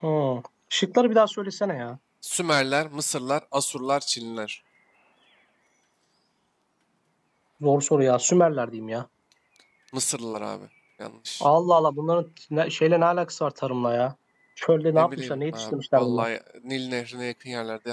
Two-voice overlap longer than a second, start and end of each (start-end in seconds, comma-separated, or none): 15.0-16.3